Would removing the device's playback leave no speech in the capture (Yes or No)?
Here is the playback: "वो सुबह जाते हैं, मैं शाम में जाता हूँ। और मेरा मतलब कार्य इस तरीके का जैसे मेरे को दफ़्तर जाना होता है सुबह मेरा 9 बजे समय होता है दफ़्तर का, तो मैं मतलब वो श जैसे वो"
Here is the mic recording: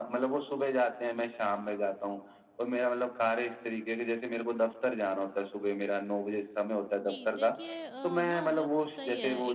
No